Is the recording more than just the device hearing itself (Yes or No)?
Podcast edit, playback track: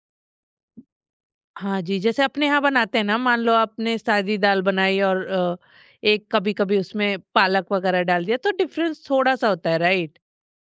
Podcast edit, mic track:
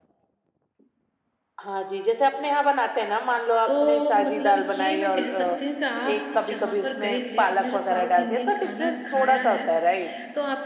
Yes